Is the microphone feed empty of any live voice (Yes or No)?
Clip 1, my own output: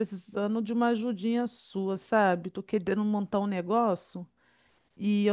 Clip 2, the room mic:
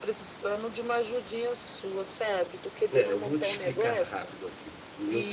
No